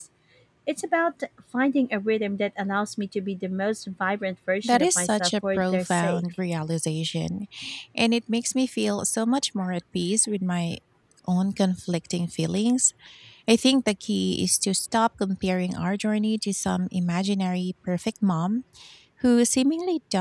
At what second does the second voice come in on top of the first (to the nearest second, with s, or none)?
5 s